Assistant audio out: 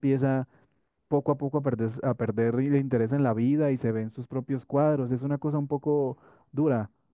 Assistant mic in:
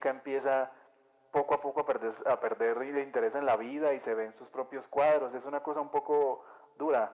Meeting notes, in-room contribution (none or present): none